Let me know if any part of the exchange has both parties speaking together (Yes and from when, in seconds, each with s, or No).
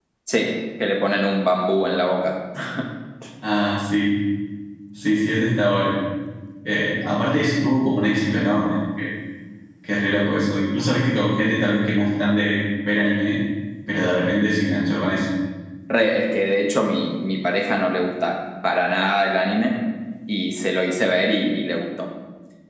No